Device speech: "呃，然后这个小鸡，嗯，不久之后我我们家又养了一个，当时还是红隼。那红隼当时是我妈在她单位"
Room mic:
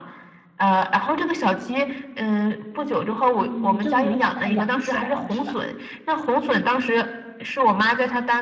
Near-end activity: present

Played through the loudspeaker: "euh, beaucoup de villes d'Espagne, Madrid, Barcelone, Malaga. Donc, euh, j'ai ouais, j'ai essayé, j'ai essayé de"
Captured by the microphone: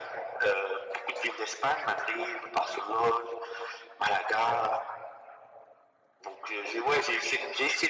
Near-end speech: none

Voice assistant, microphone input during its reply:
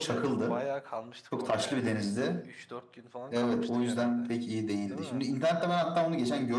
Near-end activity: present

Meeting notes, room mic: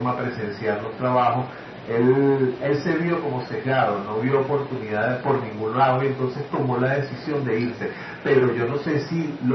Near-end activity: none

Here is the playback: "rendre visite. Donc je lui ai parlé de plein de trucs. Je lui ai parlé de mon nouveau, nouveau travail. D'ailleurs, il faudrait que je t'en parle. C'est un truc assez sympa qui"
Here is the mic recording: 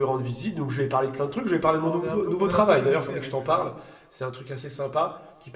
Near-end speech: present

